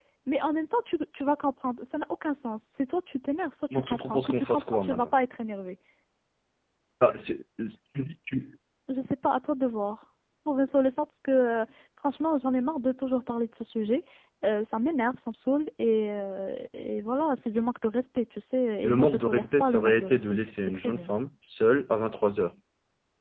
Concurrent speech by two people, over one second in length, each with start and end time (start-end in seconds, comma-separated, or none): 3.7-5.1, 18.8-21.1